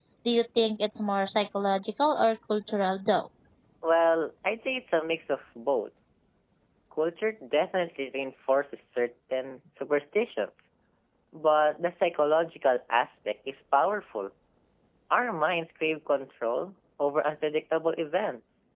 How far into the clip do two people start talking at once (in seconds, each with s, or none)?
none